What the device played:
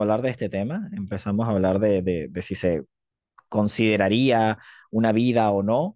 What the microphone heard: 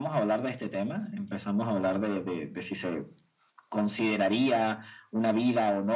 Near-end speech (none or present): none